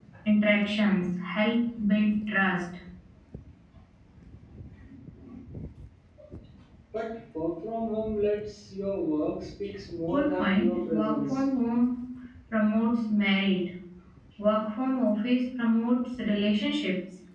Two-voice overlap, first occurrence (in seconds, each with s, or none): 10.1 s